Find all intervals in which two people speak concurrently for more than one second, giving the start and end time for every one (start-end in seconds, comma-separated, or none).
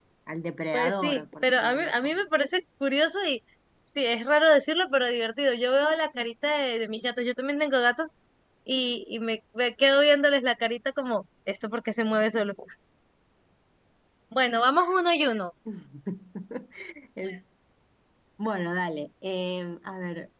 0.7-2.2